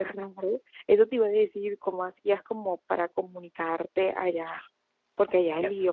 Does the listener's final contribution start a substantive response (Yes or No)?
Yes